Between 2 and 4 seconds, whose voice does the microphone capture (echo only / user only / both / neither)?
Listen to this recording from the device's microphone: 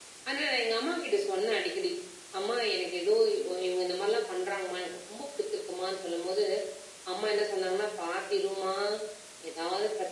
echo only